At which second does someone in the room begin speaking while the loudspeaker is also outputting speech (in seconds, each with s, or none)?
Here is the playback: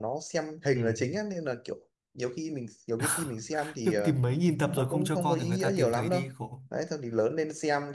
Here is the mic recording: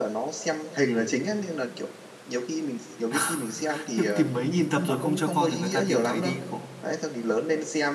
none